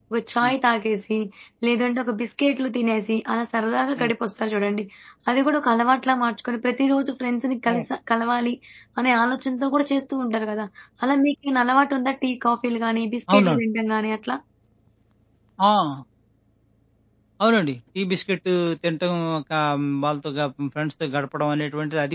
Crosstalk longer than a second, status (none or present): none